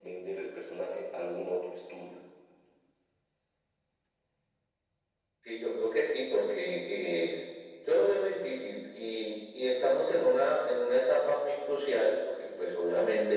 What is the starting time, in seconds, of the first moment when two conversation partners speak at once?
none

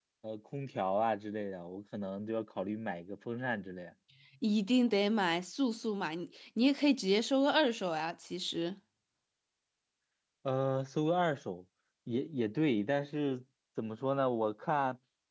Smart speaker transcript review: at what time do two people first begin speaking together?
none

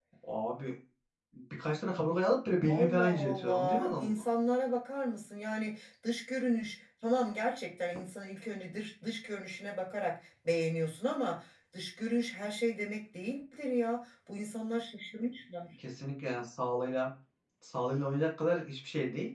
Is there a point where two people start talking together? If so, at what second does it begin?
2.7 s

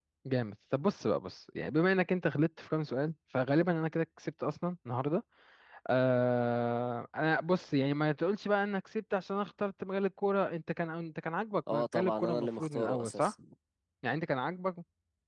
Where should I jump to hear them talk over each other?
11.7 s

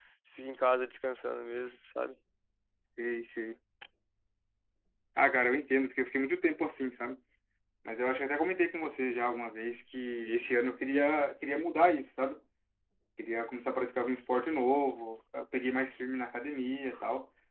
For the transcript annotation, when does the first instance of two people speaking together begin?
none

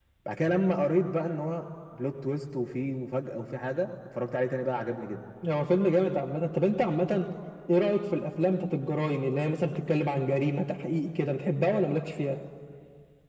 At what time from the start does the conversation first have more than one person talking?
none

